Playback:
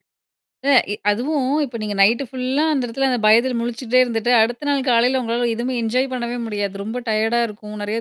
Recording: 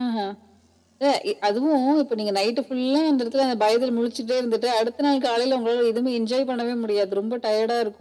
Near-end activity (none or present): none